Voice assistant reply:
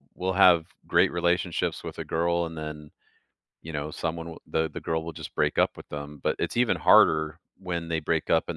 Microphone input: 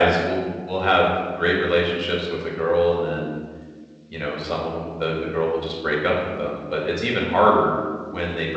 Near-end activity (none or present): none